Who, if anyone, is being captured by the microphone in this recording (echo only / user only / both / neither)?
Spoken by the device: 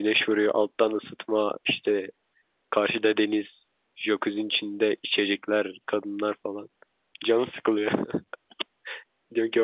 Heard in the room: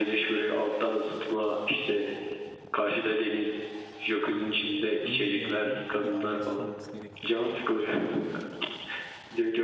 both